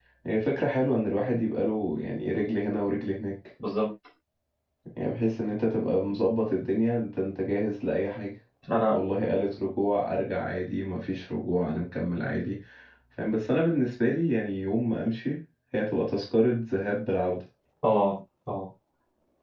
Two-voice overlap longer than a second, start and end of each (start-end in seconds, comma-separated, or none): none